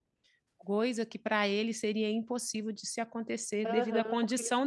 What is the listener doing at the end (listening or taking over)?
taking over